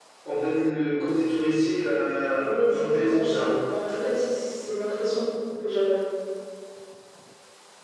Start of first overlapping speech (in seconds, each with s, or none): 2.4 s